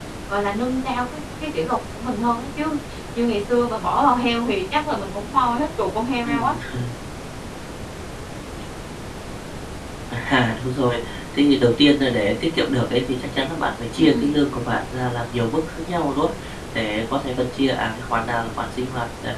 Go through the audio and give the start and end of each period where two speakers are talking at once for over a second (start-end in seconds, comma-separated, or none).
none